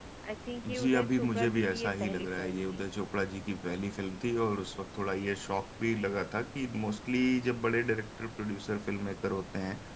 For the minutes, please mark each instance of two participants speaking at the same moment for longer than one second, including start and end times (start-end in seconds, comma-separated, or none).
0.7-2.8